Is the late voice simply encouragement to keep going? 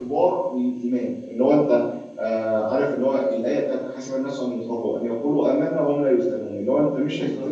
Yes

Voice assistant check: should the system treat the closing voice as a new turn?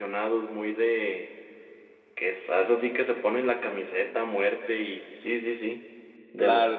Yes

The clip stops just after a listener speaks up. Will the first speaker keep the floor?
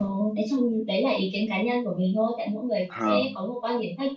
Yes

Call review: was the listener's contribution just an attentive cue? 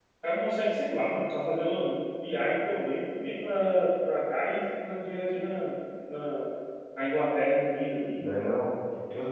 No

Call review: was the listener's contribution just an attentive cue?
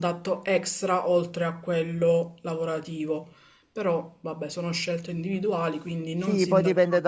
No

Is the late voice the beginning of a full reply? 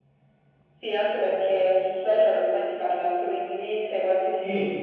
No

